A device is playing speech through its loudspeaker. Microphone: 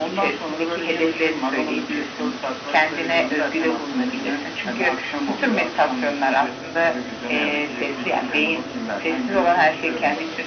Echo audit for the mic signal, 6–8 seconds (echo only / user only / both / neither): echo only